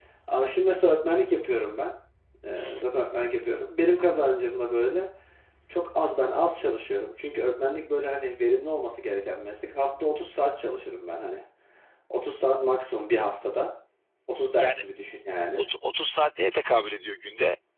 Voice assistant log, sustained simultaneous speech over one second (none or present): none